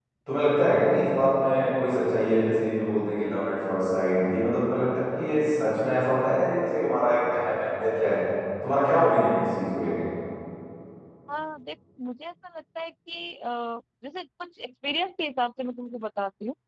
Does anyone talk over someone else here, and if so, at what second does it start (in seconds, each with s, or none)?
none